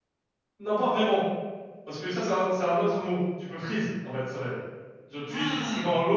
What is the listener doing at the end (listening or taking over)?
listening